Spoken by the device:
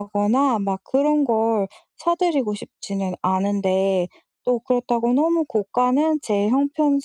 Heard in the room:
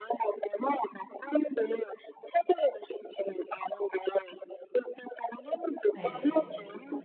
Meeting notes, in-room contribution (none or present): present